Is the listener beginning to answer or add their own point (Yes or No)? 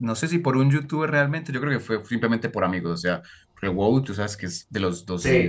No